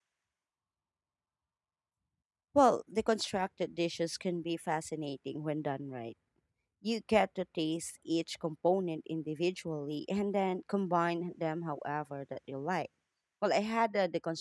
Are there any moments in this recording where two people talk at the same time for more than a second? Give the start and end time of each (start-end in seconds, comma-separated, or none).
none